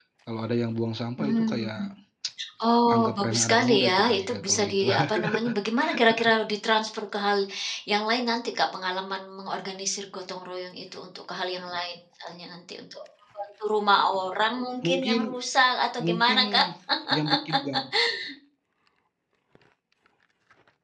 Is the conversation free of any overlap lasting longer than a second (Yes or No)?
No